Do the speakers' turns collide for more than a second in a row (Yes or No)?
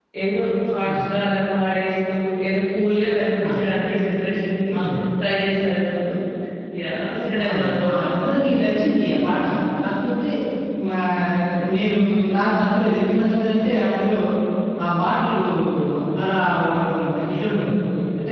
Yes